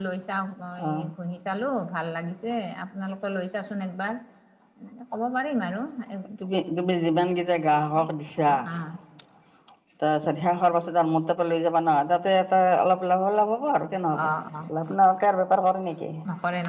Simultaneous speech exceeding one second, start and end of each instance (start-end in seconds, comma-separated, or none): none